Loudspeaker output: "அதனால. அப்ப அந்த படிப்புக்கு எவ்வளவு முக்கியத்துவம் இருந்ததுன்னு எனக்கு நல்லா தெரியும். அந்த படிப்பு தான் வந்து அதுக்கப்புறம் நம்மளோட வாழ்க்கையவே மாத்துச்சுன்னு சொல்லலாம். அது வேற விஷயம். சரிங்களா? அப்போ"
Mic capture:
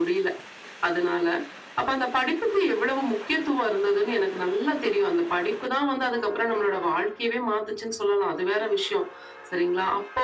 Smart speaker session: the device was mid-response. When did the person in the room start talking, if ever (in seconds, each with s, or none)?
none